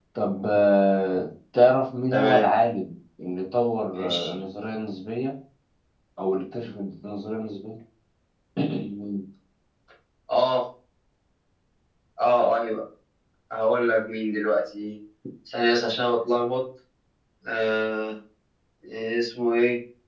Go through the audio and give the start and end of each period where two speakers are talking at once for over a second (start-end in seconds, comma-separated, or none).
none